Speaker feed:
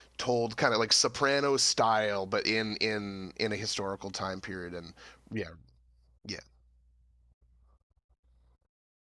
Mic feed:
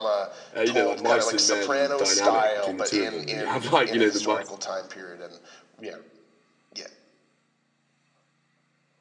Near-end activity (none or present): present